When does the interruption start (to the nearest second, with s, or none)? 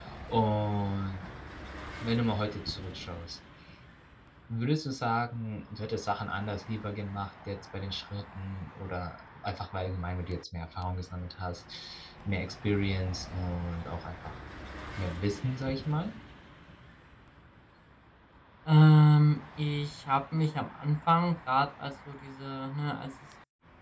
none